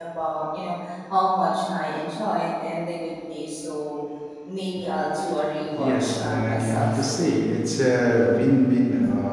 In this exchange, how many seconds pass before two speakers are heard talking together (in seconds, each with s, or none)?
5.7 s